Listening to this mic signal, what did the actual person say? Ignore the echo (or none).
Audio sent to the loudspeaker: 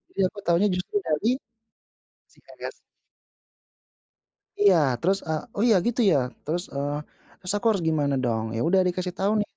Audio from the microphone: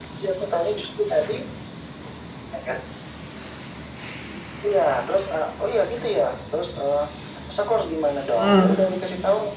Mmm.